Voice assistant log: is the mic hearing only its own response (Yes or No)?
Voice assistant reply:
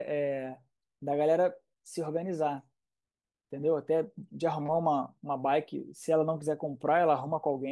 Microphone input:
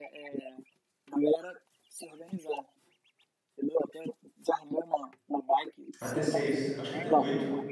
No